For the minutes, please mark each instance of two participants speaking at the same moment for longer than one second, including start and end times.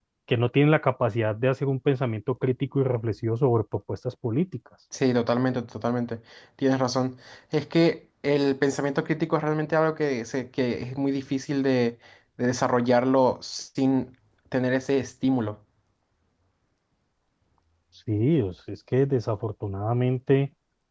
none

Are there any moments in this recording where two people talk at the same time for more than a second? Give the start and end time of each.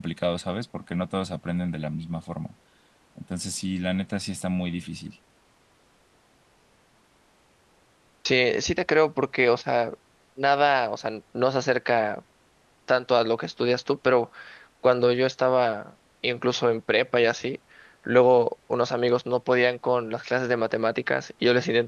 none

